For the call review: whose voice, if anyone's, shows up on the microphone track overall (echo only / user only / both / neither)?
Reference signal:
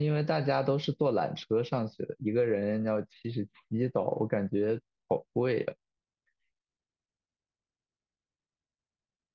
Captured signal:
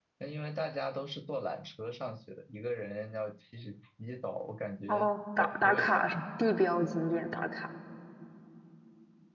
both